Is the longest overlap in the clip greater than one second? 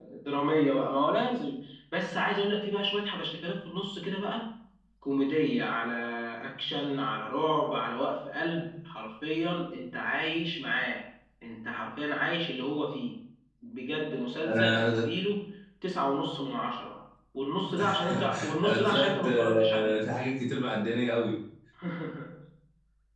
Yes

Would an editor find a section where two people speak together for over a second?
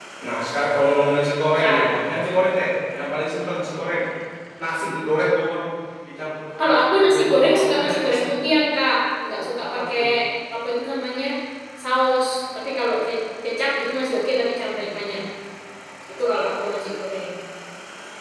Yes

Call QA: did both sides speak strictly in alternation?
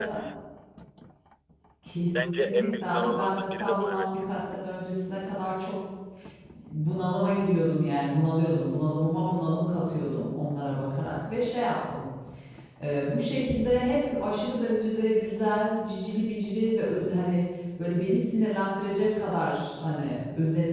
No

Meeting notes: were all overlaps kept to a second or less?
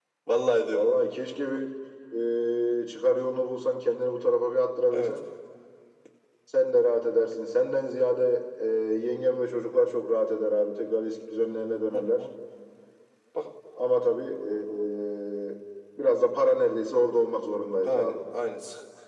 Yes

